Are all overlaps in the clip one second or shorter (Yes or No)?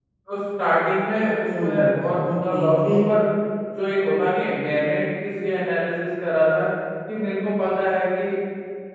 No